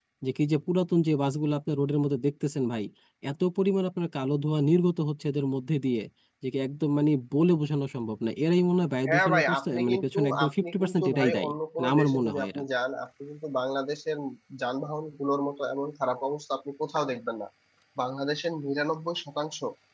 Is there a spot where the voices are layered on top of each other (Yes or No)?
Yes